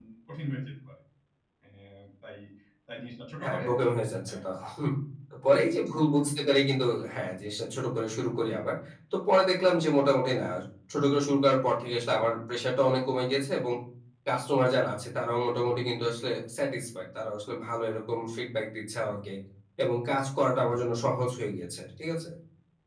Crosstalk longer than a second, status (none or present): none